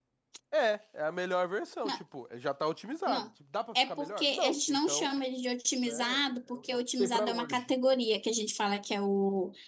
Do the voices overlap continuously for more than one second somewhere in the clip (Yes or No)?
Yes